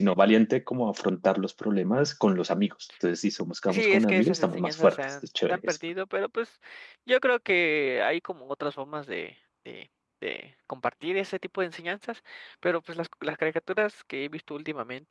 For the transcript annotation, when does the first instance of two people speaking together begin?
3.7 s

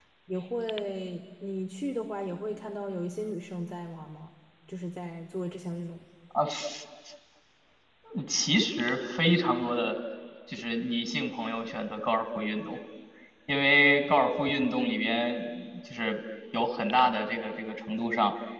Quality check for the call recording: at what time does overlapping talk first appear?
none

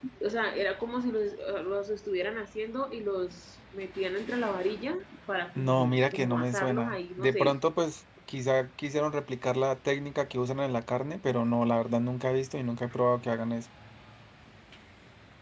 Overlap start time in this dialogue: 5.6 s

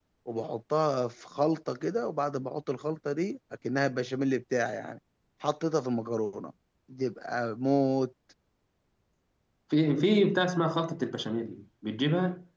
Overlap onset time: none

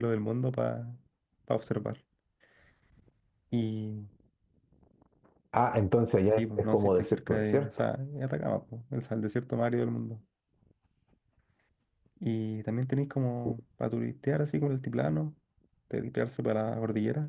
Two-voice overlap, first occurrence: 6.3 s

